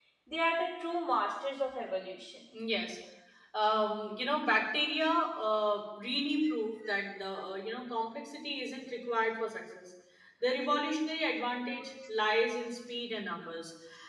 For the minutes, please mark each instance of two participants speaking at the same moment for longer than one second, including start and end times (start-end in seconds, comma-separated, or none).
none